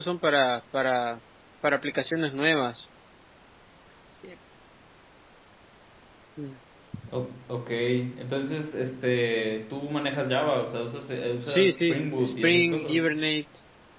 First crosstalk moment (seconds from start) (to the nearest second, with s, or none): 11 s